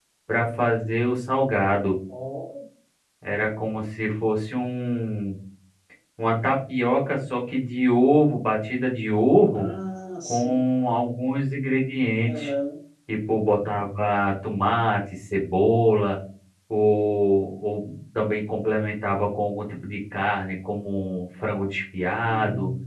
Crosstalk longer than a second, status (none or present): none